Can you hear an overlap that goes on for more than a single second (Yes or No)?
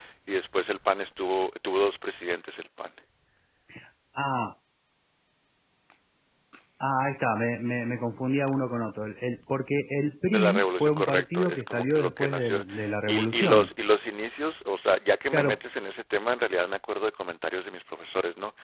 Yes